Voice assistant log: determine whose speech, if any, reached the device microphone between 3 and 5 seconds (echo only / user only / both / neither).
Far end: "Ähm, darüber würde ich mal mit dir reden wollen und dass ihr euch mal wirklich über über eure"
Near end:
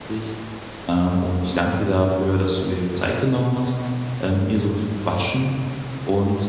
user only